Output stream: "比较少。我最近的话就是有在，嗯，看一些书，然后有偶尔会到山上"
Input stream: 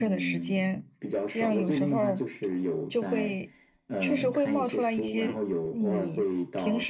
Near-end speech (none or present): present